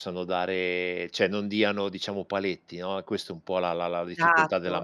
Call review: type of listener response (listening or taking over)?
taking over